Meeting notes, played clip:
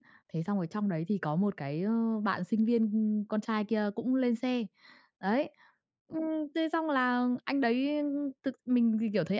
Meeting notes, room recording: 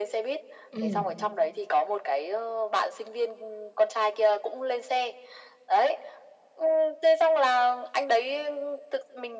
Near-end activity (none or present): present